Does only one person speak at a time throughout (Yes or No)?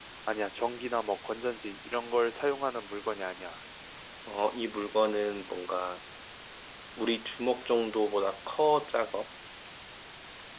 Yes